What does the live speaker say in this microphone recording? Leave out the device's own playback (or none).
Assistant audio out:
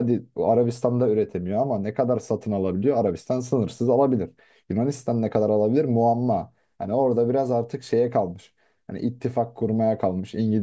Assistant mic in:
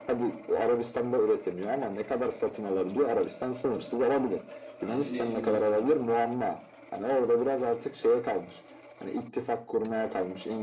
Bence net Yunanistan.